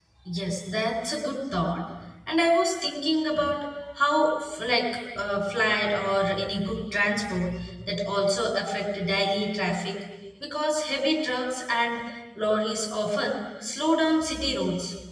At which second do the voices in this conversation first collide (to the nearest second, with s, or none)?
none